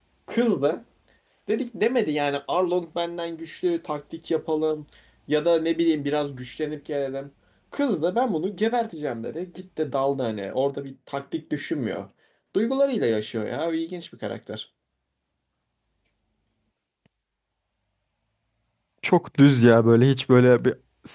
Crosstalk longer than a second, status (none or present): none